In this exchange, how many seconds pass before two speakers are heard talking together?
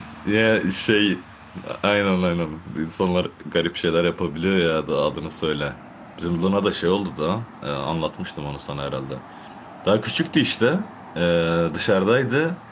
none

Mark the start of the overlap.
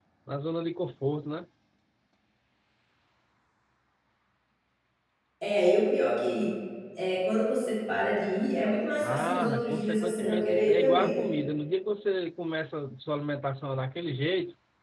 9.0 s

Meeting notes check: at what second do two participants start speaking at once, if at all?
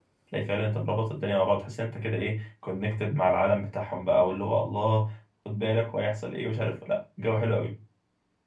none

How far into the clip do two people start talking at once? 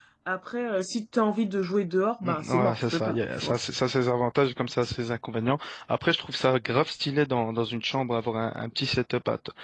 2.2 s

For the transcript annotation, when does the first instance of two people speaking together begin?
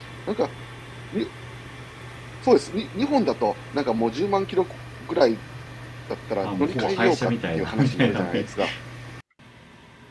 6.4 s

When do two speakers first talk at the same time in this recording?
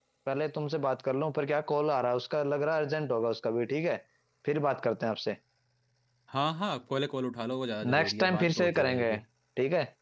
7.8 s

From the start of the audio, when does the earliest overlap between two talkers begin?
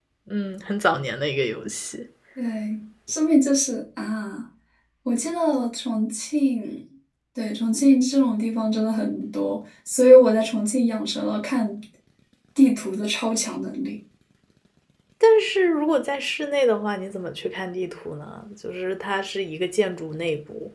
none

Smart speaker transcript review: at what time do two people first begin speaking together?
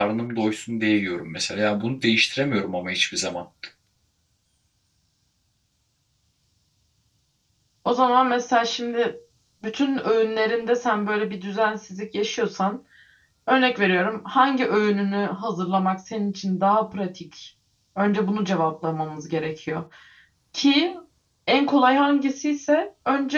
none

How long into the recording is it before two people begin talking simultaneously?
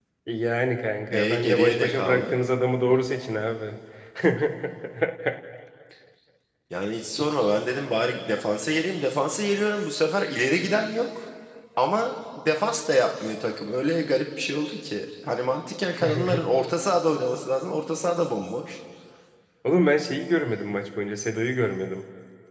1.1 s

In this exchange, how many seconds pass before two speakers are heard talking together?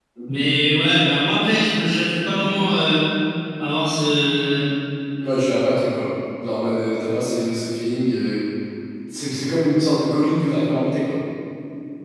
none

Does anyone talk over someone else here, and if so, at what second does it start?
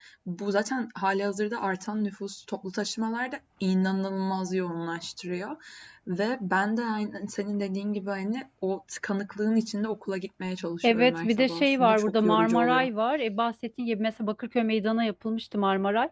10.8 s

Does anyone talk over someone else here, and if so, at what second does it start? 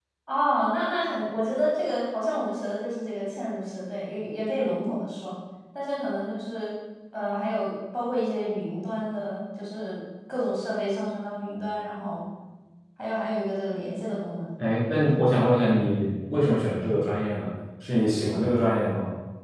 none

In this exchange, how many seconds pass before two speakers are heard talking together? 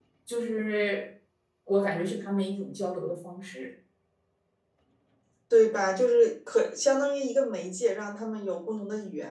none

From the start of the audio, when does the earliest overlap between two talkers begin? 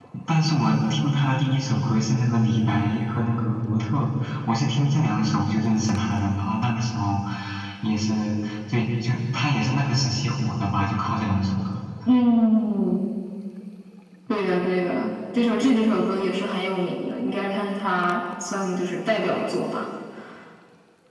none

